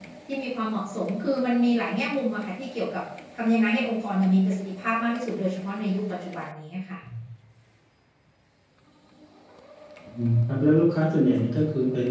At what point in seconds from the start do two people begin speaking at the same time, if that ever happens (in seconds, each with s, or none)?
none